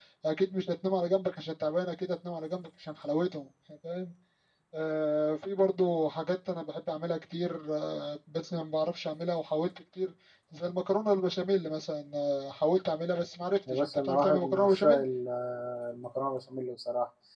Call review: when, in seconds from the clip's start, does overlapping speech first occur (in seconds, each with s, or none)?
13.7 s